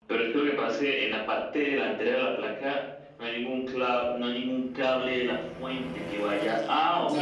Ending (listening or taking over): listening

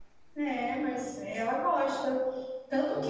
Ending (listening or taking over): listening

